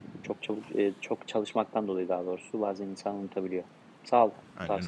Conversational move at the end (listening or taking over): taking over